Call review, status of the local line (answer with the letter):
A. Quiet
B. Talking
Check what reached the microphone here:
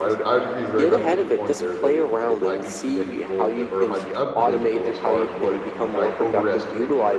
B